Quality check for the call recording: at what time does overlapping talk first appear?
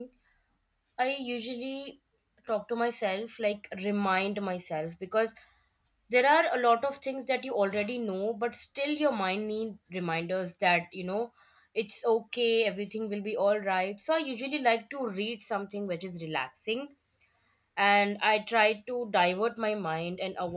none

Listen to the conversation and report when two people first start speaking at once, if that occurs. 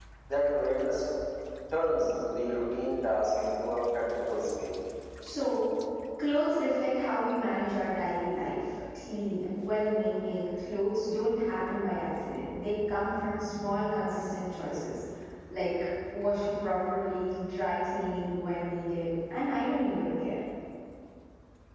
none

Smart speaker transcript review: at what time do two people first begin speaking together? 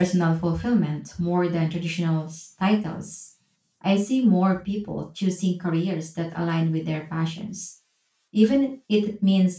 none

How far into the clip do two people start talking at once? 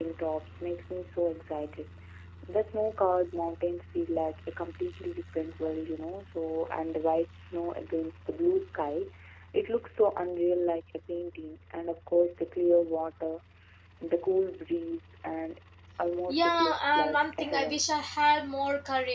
16 s

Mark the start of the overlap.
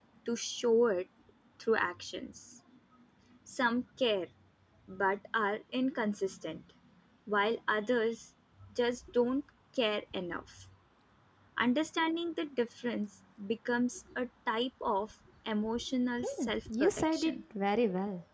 16 s

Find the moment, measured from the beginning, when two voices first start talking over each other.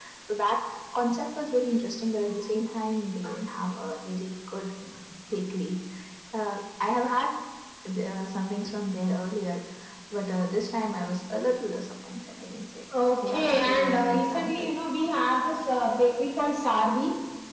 13 s

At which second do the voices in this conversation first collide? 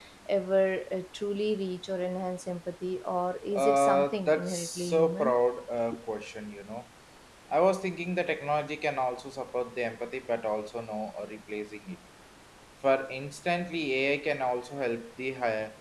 4 s

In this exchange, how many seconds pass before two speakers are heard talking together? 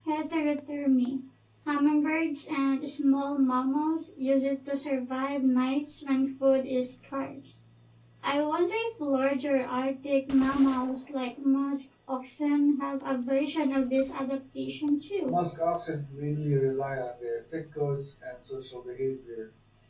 none

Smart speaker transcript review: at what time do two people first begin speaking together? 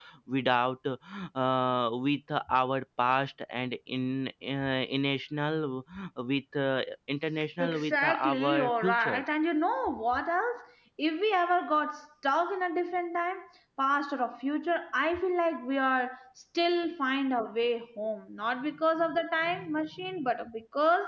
8 s

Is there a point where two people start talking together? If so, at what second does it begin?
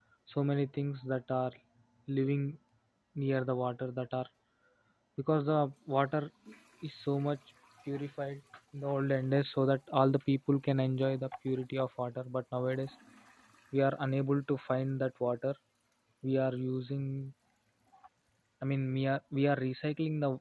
none

